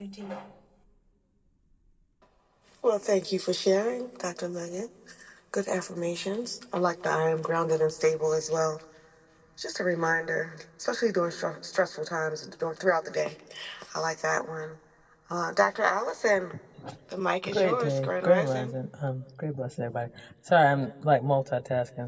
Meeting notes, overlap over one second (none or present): present